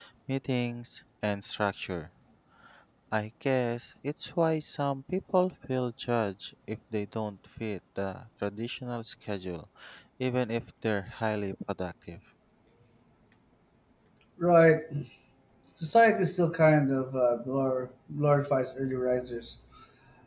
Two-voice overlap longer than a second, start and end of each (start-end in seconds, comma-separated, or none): none